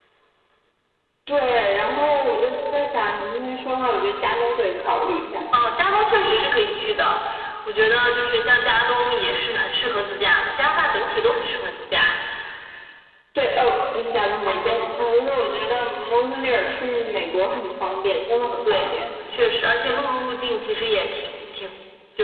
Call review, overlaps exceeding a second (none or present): none